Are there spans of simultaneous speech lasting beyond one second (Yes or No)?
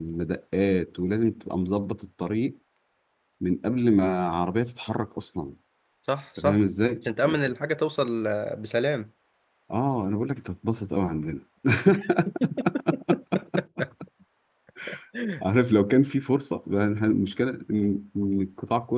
No